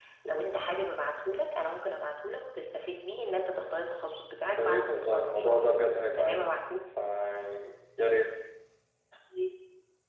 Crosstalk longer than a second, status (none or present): present